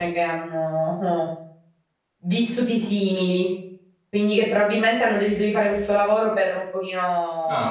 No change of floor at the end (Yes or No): Yes